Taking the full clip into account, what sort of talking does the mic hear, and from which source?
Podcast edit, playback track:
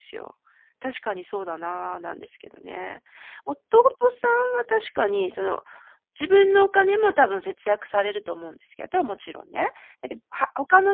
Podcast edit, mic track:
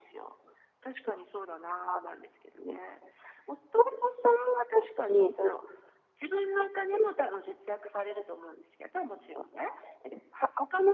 echo only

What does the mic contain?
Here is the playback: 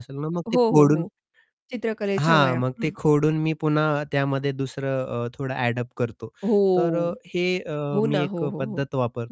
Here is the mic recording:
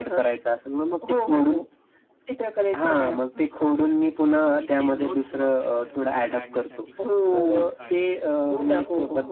both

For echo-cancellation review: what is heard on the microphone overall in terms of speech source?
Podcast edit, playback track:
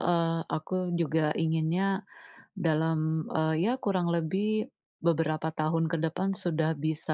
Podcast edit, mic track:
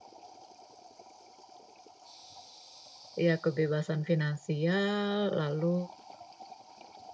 user only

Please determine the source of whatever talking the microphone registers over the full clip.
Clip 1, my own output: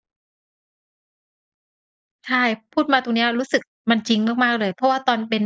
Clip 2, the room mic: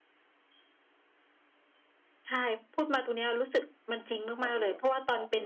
both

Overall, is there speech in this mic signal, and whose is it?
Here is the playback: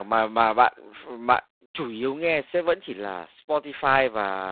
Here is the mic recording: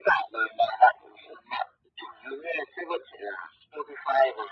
echo only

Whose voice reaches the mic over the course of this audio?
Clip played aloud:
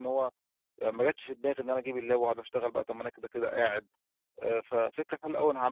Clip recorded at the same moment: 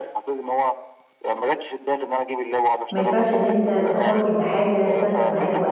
both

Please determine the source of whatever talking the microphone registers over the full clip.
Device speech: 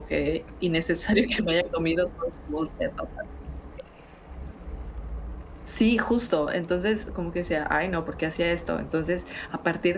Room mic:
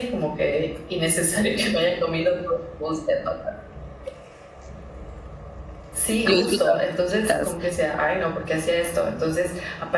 both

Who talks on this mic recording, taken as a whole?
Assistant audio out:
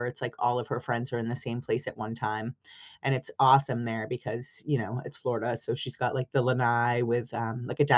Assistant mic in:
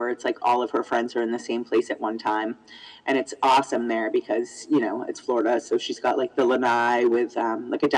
echo only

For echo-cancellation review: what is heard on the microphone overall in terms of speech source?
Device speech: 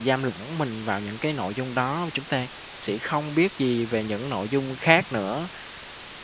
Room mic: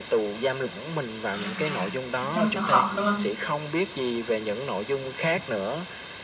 both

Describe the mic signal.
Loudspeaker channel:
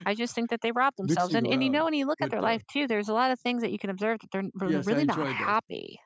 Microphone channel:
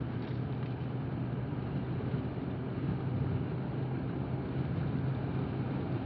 neither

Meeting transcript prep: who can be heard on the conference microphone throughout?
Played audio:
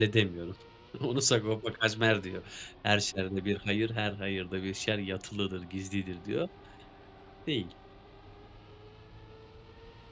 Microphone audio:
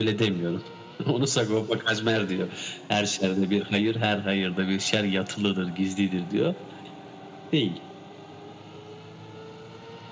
echo only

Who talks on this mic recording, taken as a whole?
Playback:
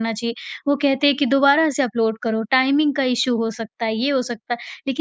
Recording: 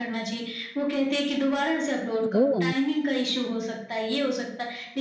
both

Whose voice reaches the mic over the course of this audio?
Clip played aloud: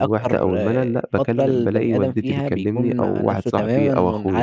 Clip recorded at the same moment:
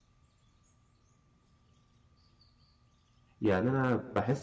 user only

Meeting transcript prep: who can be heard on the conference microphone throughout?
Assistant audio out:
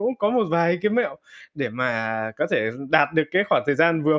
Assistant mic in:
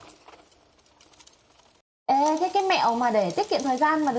user only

